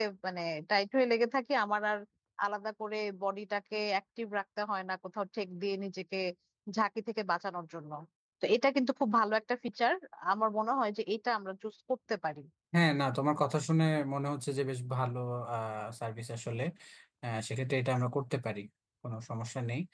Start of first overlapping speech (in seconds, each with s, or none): none